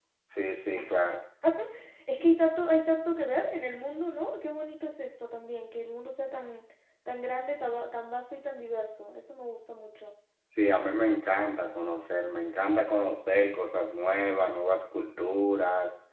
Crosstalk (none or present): none